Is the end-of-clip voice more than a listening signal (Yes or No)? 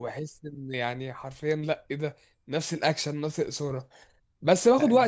No